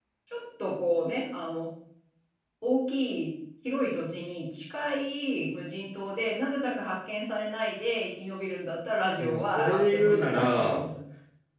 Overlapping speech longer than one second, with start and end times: 9.2-10.9

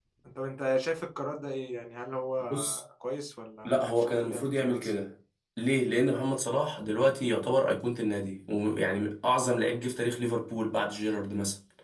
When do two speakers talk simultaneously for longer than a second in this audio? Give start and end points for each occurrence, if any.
3.6-4.9

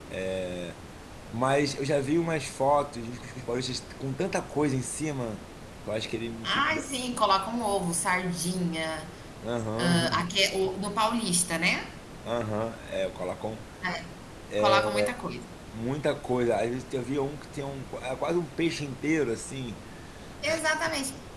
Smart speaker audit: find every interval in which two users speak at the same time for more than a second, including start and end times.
none

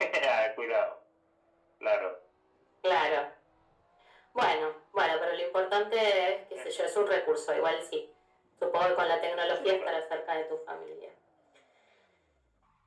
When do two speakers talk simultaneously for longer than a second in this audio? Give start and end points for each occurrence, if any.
none

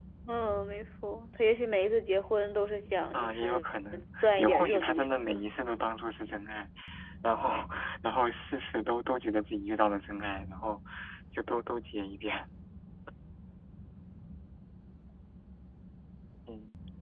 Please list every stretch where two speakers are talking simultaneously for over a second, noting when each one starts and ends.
4.2-5.4

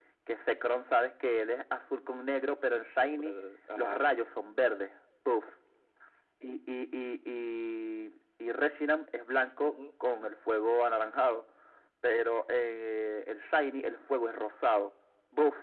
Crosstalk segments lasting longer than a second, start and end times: none

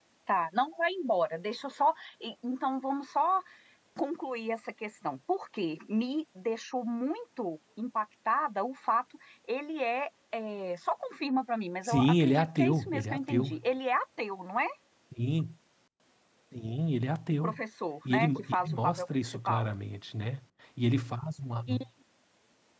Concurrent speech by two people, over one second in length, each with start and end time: 11.8-13.6, 18.1-19.7

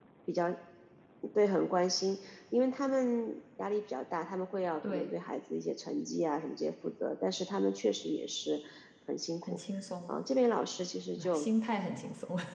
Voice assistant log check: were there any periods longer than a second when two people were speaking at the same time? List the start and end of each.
none

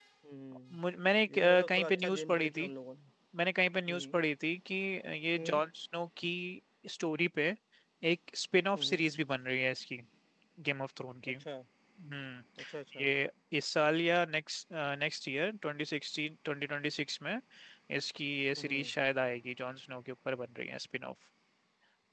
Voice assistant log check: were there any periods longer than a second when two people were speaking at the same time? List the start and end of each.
1.3-2.7

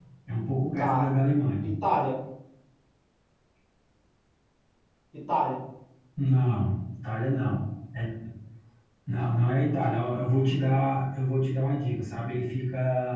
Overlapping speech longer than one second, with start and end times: none

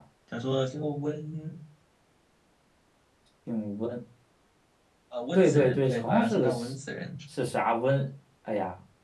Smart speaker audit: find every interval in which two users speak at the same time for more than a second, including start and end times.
5.4-6.7

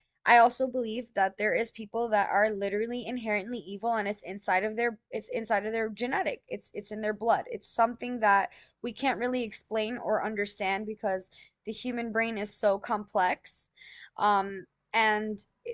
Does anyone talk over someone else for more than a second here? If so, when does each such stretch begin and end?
none

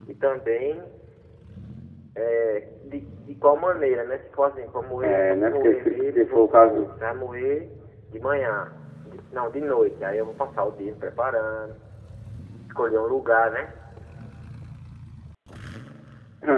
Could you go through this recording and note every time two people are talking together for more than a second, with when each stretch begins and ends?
5.0-6.9

